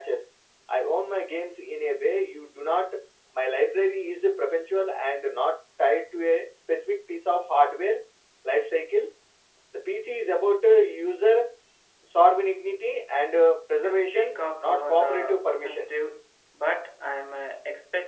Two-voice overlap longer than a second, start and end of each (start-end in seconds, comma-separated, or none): 13.8-15.9